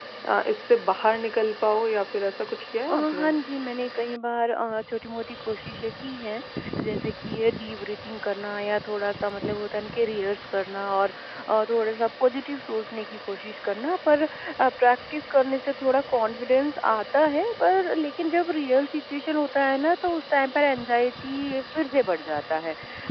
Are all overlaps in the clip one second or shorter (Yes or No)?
Yes